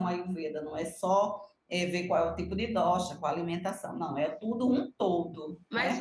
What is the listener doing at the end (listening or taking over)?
taking over